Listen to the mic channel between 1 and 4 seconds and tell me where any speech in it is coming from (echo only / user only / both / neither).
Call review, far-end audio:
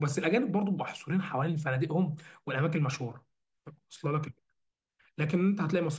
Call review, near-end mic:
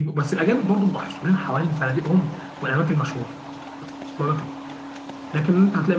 echo only